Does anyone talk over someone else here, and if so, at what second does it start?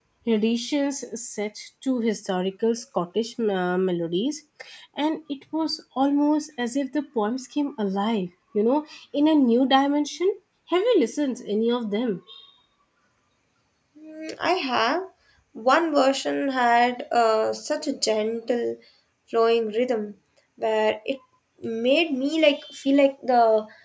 none

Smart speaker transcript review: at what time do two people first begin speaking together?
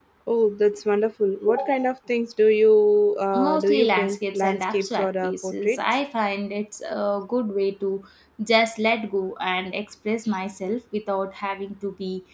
3.3 s

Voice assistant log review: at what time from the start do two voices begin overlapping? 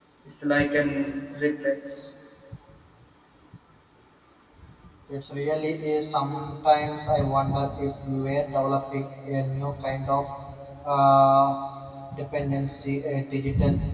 none

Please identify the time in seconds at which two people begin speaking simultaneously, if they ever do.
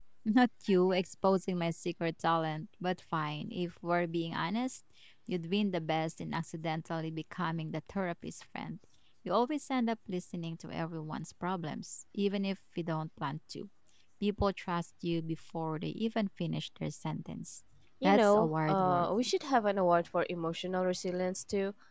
18.0 s

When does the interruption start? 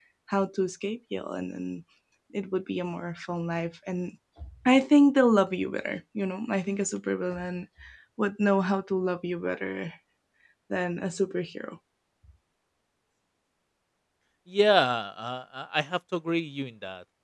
none

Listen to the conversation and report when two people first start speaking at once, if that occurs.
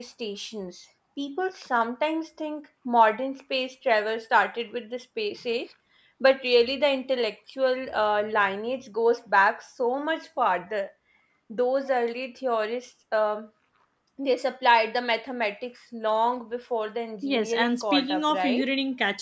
17.2 s

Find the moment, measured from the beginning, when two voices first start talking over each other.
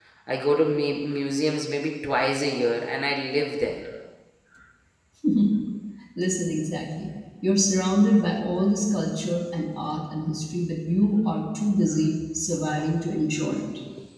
none

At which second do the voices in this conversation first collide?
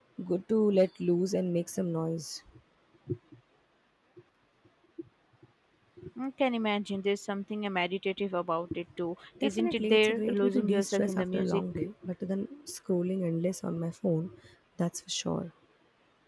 9.4 s

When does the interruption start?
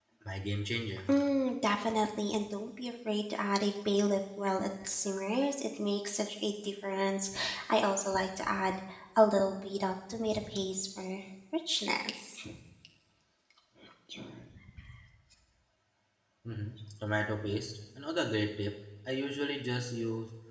none

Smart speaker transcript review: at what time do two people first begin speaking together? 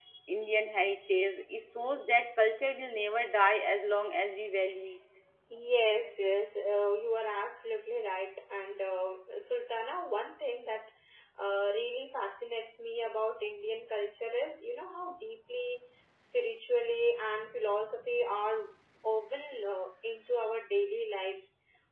none

